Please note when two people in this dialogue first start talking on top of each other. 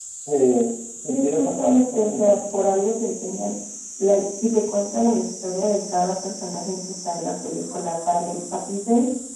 1.1 s

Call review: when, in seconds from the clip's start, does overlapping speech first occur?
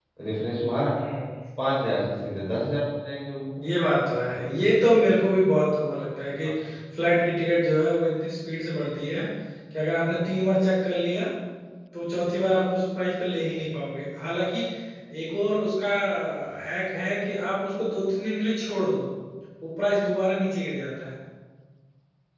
none

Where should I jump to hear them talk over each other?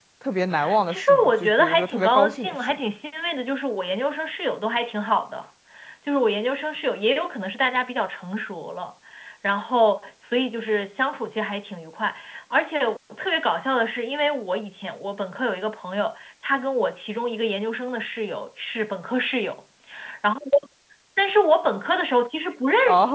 0.9 s

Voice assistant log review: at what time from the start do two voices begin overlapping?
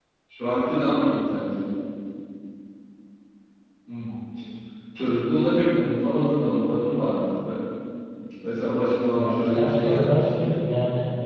9.2 s

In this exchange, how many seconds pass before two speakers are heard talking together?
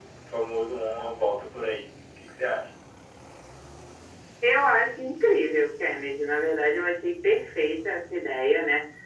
none

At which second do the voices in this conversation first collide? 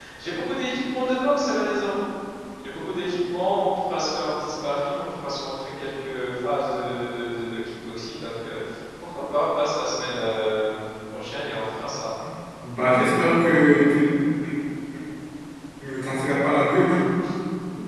none

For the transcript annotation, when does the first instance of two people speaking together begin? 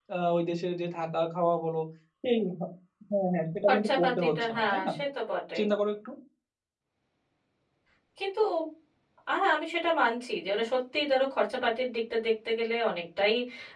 3.7 s

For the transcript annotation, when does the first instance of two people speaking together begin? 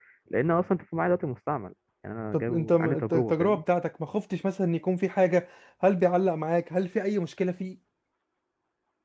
2.3 s

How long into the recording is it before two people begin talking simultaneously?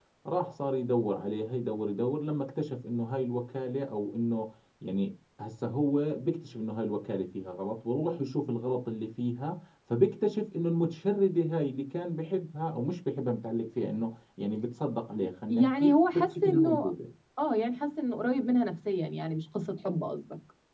15.5 s

